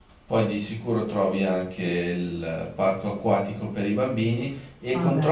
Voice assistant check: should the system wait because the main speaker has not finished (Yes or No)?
Yes